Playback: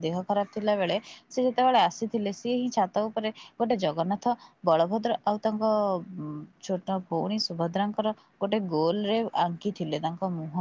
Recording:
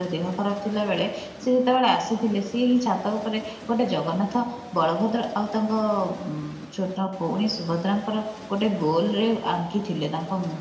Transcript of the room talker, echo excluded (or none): none